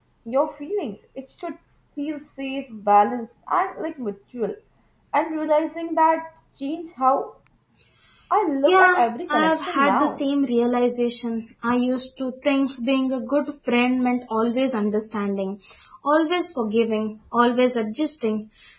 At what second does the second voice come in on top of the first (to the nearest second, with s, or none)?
9 s